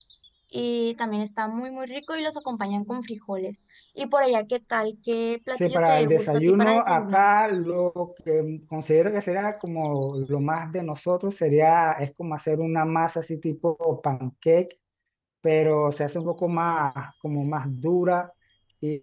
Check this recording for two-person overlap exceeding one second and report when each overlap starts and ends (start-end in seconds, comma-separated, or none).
5.6-7.2